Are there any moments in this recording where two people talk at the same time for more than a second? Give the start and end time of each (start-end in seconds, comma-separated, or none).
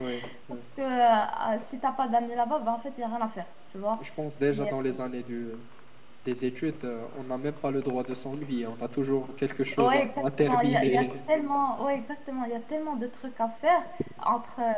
9.8-11.1